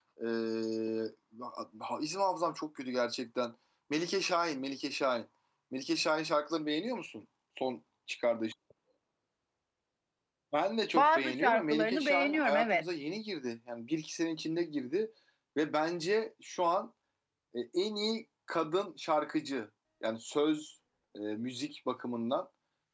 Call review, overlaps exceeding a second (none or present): present